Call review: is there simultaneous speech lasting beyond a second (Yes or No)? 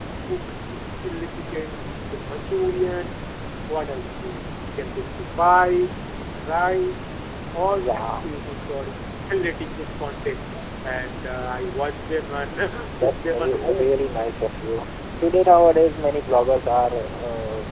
Yes